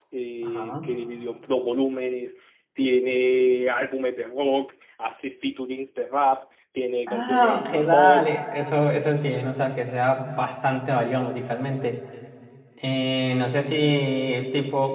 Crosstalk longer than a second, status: present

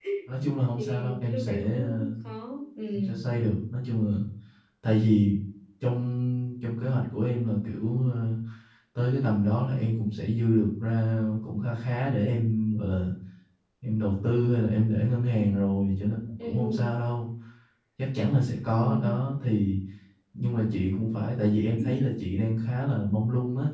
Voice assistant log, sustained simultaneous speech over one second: present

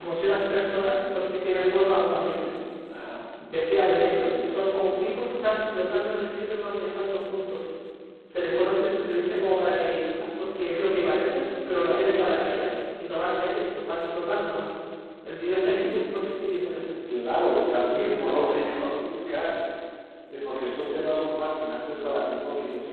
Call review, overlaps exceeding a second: none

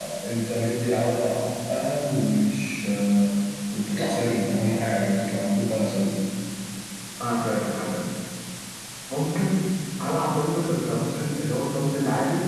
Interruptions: none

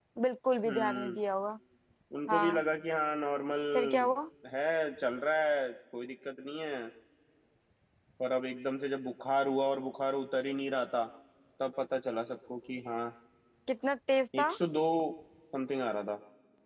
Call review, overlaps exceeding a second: none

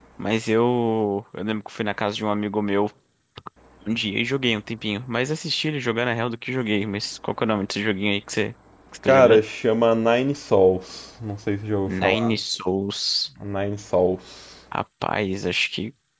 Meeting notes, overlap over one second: none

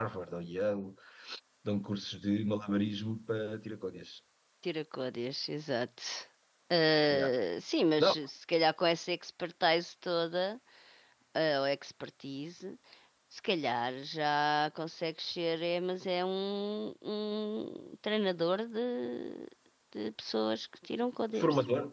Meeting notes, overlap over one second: none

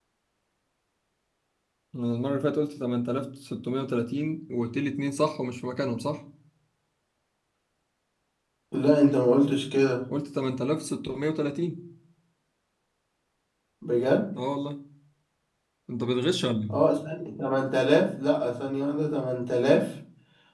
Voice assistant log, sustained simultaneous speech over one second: none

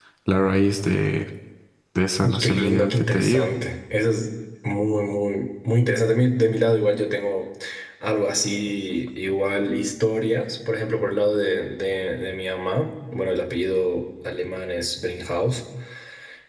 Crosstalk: present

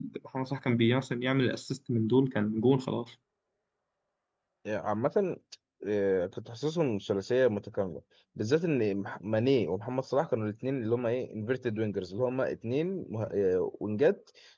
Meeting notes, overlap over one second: none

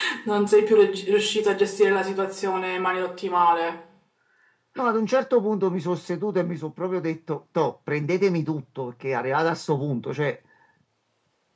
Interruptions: none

